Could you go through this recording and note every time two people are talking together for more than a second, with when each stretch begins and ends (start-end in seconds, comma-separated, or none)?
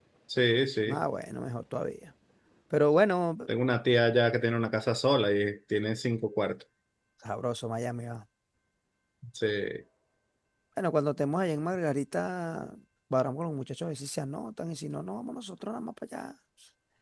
none